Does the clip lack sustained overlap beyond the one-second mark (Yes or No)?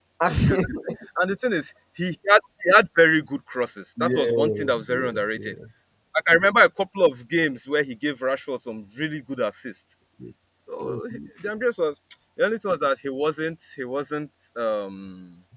No